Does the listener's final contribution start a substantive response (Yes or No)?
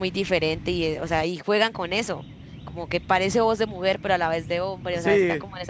Yes